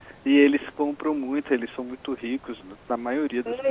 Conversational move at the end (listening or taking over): taking over